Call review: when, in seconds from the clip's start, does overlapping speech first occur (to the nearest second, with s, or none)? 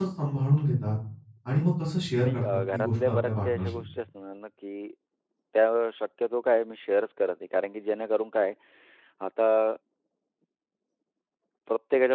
2 s